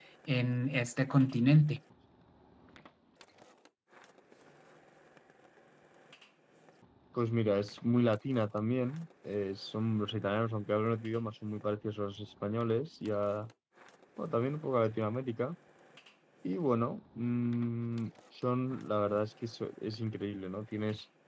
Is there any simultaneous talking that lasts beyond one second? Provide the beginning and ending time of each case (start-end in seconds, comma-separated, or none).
none